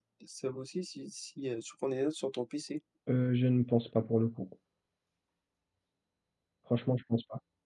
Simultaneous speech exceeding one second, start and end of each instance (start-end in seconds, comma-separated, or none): none